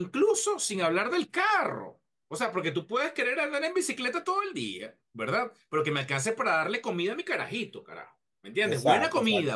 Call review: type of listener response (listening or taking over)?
listening